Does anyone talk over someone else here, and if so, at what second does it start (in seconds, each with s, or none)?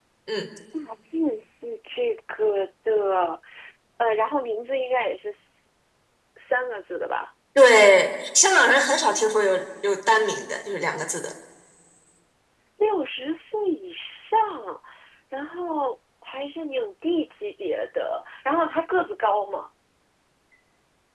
none